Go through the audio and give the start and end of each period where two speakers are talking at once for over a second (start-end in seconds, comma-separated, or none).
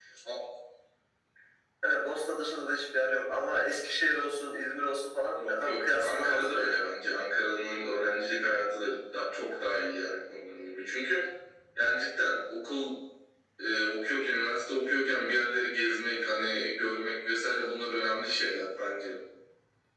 5.5-6.9